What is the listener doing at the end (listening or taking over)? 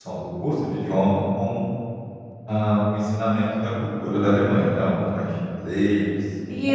taking over